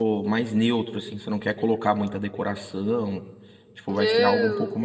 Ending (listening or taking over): taking over